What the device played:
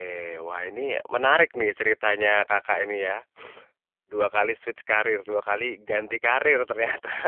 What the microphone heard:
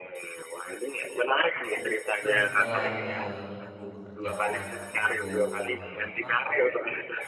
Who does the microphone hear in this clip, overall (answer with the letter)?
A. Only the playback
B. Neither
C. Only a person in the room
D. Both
D